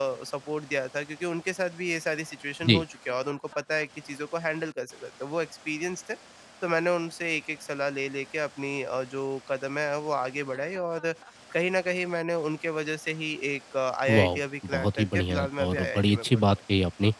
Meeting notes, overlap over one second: present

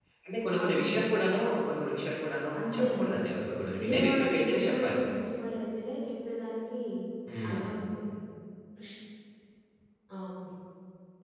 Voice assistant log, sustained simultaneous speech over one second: present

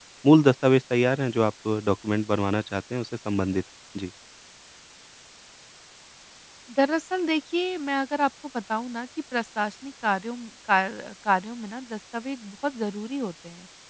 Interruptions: none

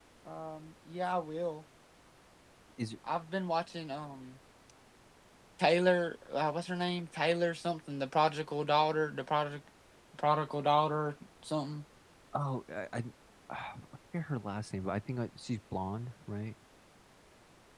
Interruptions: none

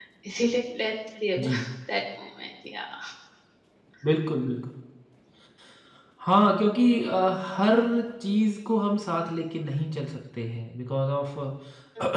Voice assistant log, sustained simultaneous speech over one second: none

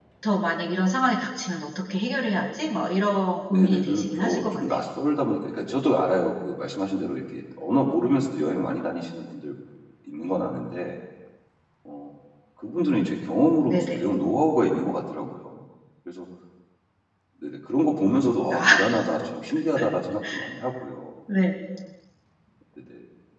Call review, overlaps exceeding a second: present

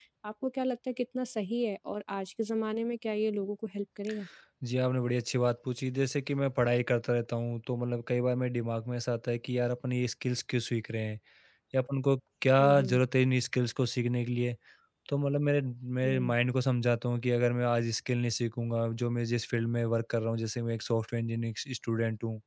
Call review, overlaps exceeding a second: none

